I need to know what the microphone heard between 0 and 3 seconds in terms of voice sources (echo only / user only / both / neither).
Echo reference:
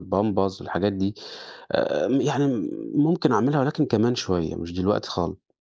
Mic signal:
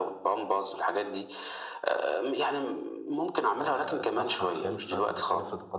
echo only